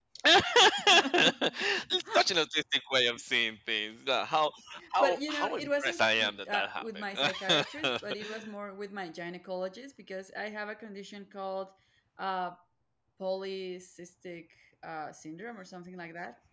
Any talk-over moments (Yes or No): Yes